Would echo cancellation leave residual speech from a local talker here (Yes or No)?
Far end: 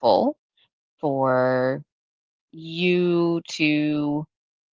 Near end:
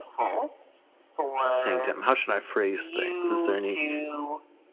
Yes